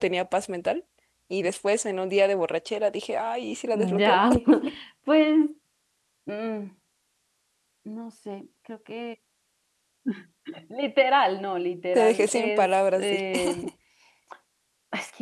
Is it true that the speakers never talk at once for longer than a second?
No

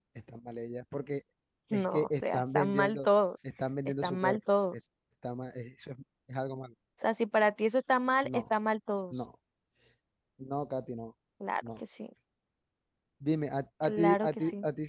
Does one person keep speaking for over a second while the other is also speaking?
Yes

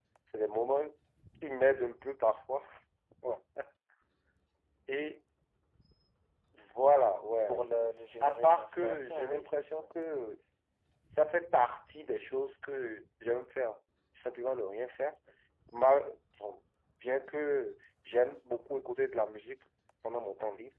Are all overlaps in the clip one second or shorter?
No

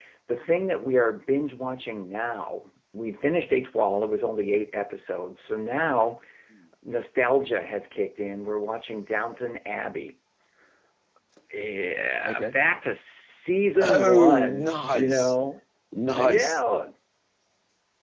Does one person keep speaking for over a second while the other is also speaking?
Yes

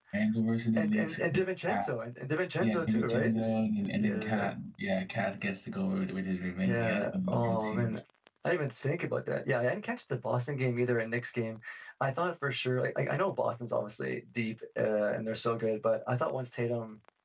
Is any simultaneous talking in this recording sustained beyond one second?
Yes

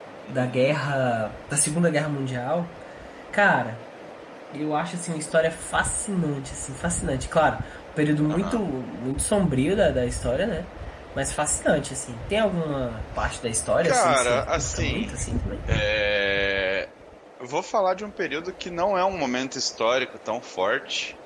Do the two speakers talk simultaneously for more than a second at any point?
Yes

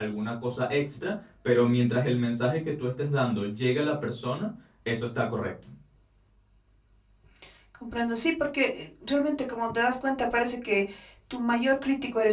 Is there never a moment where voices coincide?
Yes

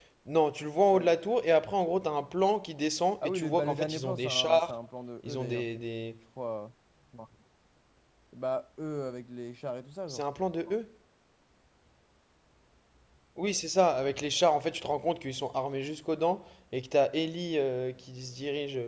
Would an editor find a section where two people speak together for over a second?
Yes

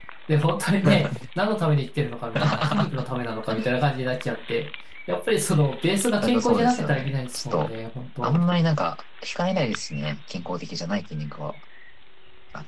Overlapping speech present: Yes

